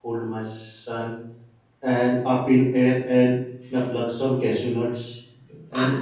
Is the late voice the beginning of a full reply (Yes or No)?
No